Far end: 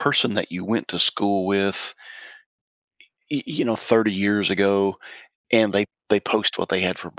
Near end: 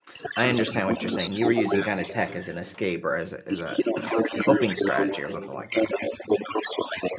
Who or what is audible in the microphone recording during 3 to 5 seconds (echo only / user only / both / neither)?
both